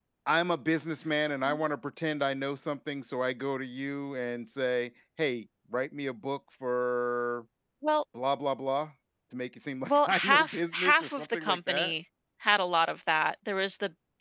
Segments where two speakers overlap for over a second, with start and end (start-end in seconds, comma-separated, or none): 9.9-11.9